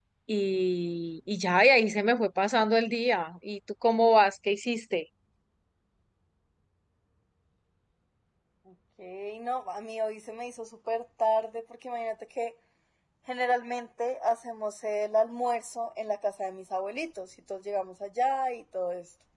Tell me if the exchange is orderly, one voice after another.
Yes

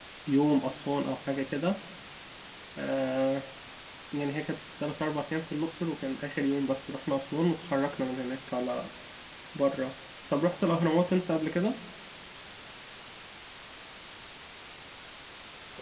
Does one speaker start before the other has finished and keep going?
No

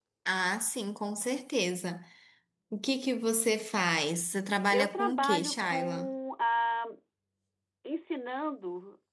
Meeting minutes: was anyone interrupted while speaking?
Yes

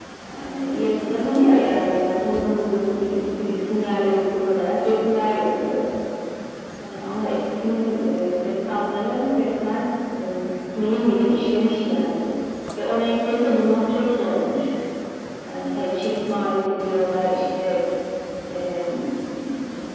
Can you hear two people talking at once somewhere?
No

